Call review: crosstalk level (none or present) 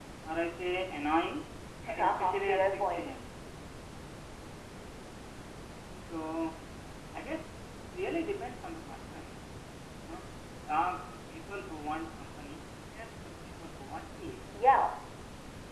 present